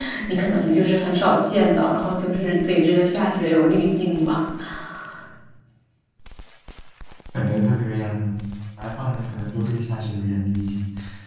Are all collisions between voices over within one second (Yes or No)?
Yes